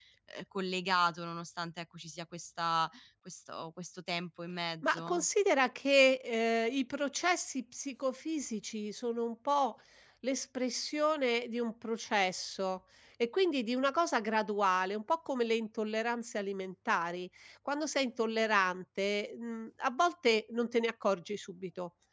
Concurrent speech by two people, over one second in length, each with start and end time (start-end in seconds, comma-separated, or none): none